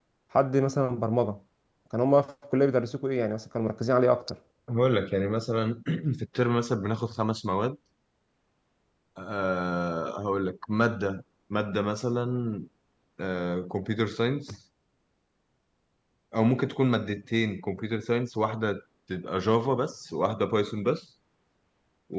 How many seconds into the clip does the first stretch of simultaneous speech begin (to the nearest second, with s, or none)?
none